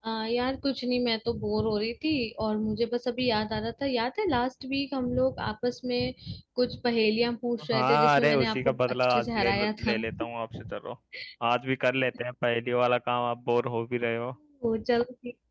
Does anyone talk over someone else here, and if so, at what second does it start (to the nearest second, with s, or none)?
8 s